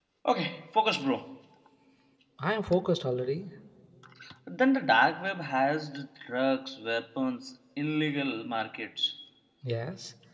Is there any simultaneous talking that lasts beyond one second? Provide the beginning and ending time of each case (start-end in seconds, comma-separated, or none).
none